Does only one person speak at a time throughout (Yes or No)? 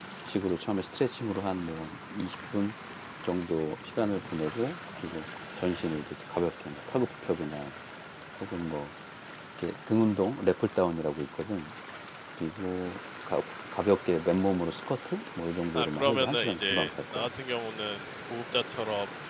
No